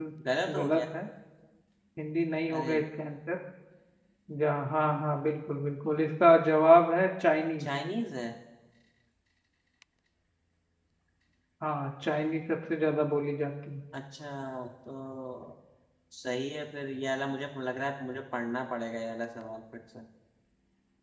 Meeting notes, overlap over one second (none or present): none